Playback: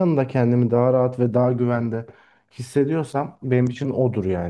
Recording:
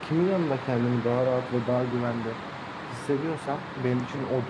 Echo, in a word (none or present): present